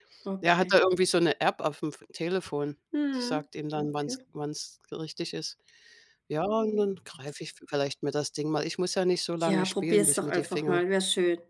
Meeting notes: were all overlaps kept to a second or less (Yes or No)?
No